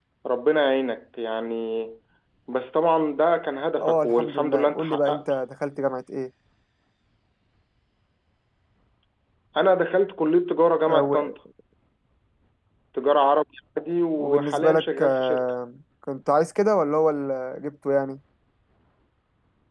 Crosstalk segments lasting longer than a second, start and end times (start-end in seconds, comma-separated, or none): 3.8-5.2, 14.2-15.5